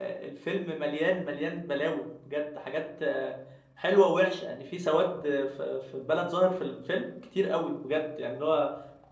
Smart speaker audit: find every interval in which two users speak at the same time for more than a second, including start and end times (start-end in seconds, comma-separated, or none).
none